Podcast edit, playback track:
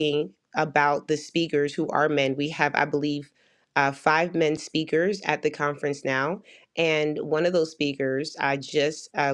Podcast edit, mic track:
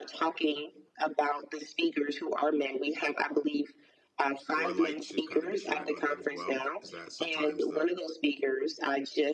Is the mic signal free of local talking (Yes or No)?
No